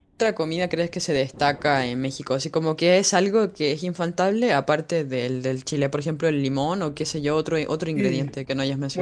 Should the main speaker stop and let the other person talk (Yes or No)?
Yes